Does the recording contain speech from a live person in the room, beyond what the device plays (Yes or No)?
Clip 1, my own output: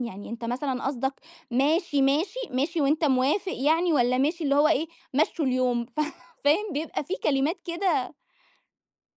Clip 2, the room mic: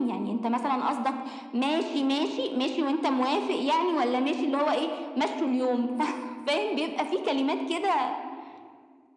No